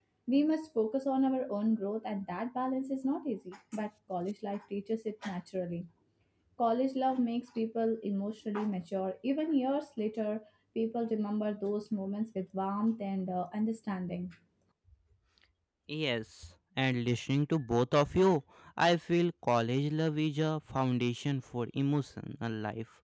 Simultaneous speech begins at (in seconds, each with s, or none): none